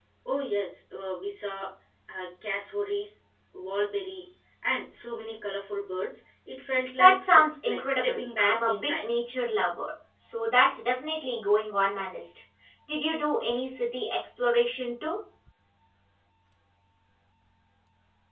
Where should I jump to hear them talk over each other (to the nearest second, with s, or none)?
7 s